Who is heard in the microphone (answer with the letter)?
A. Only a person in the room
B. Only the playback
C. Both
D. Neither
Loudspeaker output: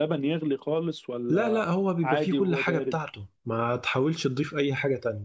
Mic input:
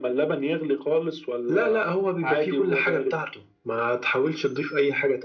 B